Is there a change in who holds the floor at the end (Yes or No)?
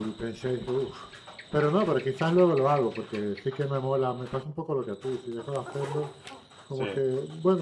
No